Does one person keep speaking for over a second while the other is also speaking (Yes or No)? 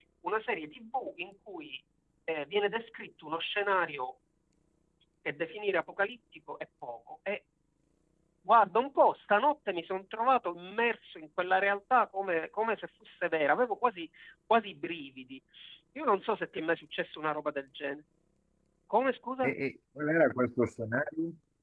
No